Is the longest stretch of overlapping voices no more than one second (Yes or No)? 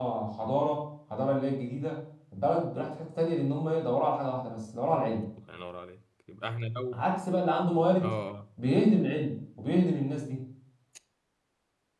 Yes